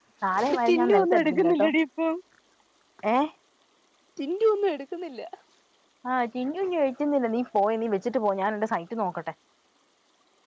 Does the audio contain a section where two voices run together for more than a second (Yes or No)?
Yes